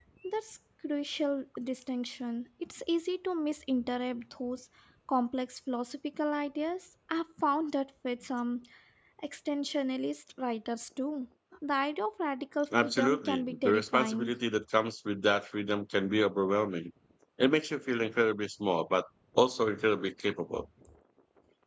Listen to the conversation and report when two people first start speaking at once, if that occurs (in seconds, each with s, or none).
12.7 s